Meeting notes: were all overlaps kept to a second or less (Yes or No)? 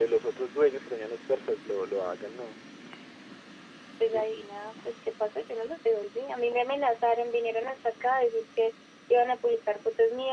Yes